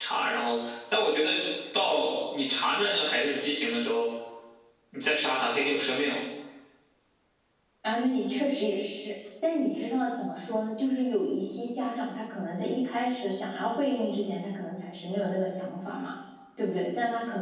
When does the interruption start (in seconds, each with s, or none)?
none